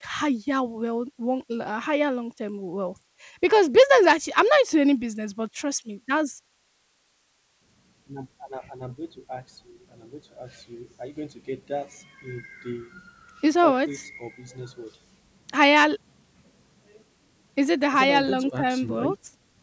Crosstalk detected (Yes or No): Yes